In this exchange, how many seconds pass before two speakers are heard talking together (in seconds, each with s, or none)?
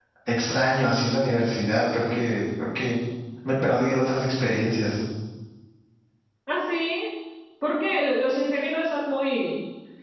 none